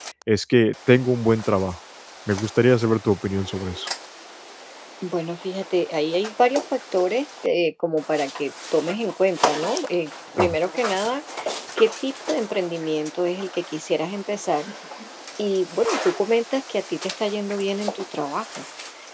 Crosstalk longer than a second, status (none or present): none